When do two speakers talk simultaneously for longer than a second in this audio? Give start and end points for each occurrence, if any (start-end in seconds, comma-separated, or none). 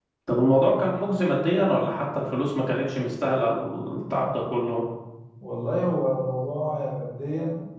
none